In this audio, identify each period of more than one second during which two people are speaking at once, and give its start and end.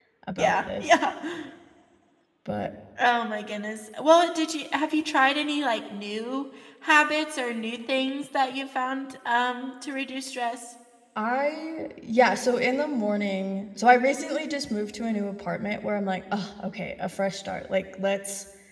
none

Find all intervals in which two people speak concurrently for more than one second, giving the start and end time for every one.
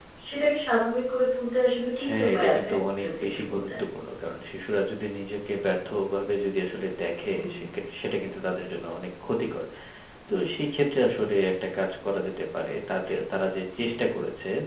2.0-3.7

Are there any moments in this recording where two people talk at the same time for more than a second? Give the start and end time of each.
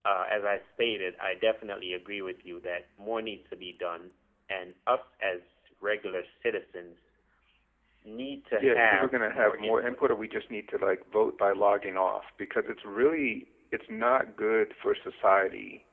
8.5-10.0

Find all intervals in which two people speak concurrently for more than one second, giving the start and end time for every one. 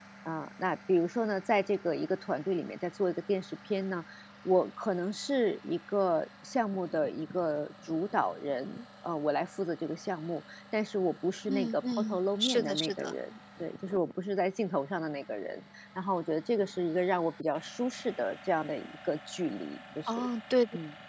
11.5-13.1

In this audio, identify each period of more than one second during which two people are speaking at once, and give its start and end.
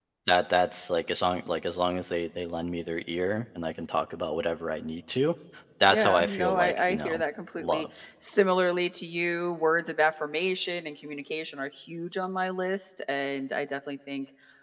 5.9-7.2

